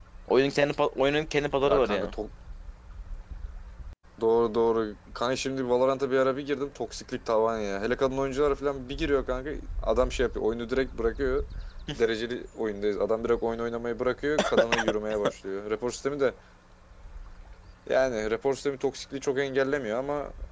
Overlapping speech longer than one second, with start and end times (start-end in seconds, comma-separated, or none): none